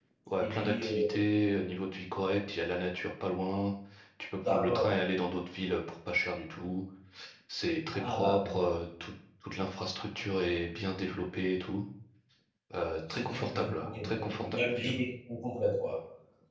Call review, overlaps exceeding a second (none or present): present